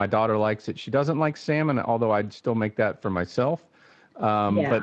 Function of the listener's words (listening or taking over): listening